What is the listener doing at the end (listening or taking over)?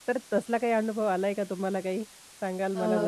taking over